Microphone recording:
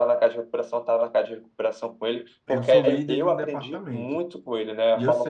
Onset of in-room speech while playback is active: 2 s

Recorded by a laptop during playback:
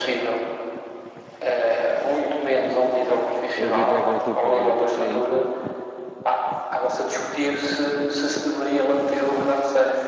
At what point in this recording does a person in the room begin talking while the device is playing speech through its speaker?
4 s

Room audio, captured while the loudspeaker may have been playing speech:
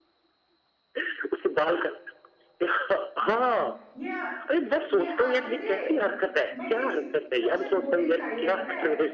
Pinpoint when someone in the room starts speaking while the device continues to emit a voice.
3 s

